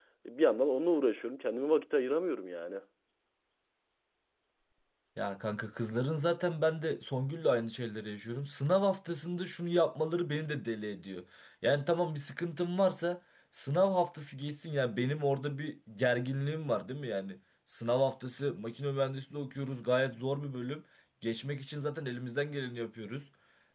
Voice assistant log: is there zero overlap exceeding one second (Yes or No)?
Yes